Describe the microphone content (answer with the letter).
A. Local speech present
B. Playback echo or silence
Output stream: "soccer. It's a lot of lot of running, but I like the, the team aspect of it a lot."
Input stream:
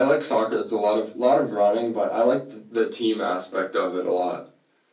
B